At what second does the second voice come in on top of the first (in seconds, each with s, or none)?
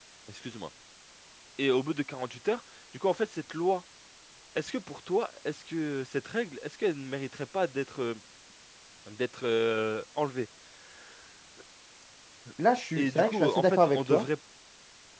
13.0 s